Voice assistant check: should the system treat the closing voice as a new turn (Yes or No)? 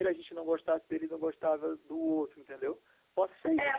Yes